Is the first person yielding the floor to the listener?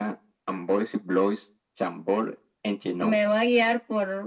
Yes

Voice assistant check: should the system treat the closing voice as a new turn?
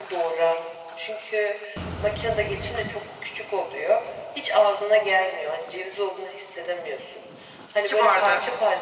No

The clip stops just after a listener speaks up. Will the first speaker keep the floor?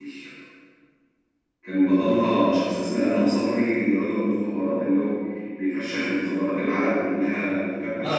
No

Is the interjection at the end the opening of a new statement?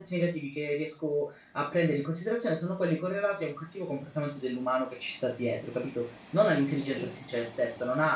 No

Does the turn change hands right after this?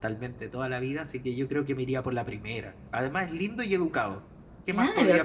Yes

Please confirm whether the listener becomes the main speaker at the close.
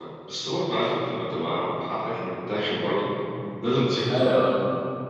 Yes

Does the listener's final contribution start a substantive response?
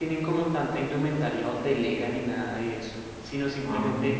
No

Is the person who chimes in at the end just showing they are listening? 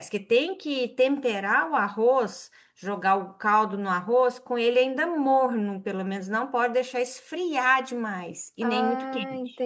No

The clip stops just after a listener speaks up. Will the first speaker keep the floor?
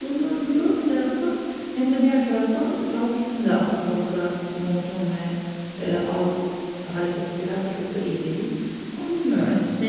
Yes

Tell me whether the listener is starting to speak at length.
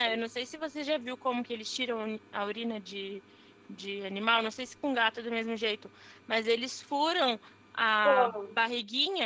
No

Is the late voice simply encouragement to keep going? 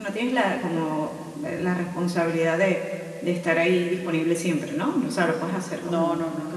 No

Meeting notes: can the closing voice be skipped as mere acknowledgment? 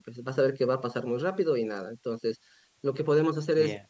Yes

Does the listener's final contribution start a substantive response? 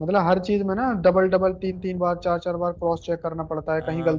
Yes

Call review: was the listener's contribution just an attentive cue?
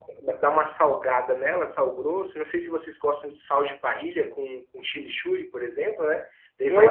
No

